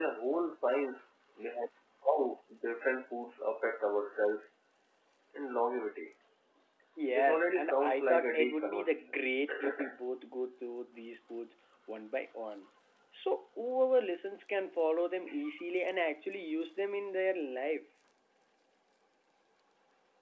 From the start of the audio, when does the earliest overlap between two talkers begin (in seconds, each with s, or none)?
7.1 s